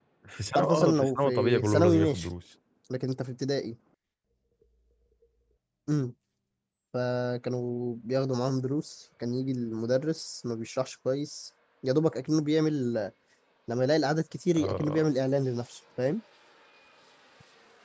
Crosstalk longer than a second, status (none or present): present